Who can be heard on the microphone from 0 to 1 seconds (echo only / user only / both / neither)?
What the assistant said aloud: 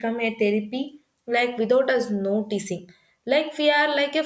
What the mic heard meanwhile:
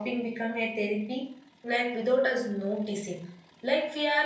echo only